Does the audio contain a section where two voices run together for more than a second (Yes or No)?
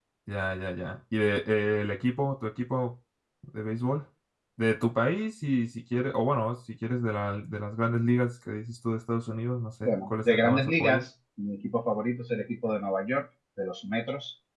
Yes